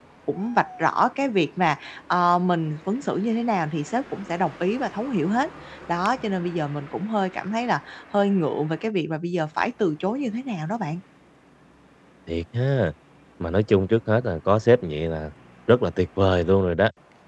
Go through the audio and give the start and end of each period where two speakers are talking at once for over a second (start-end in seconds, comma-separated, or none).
none